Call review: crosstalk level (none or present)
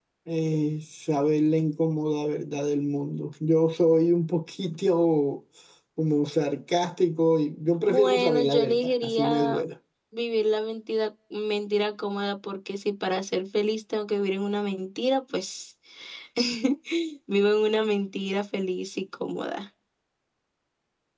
present